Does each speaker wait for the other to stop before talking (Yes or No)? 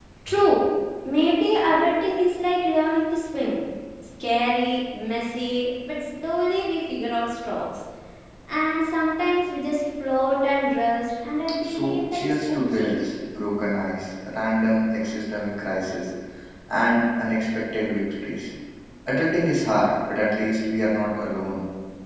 No